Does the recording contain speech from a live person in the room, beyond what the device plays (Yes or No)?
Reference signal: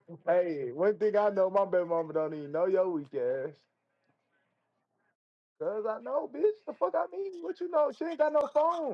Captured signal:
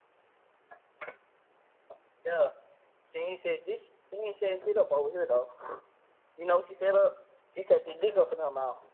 Yes